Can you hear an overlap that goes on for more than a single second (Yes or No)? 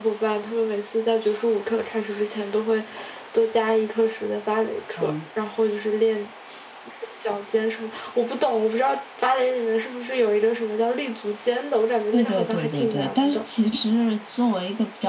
Yes